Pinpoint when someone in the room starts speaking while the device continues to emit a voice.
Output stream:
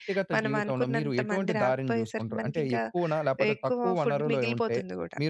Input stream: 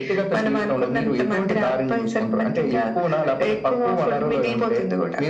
none

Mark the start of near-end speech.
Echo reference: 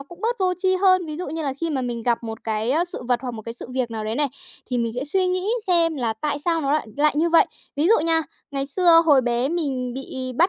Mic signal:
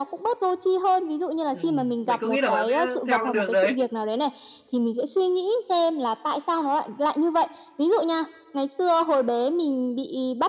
1.4 s

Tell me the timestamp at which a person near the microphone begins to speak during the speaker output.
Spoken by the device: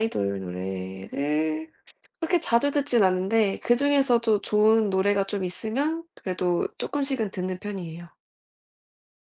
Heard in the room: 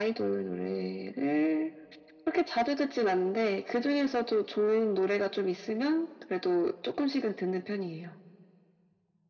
none

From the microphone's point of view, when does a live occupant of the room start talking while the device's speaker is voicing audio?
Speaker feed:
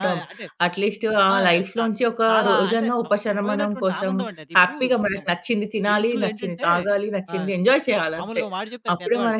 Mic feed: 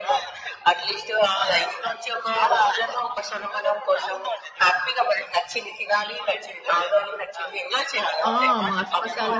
8.3 s

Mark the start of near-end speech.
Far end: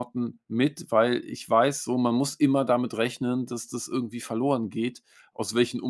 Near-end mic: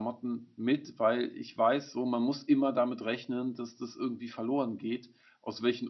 none

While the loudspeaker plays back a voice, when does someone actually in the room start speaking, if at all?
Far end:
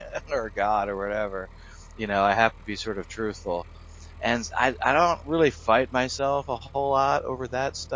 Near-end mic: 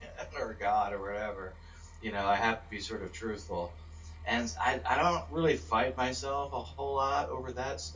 none

